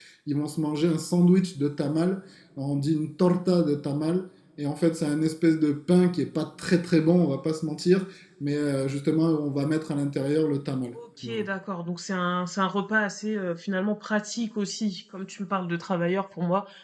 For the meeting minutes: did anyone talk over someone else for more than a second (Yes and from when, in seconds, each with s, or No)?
No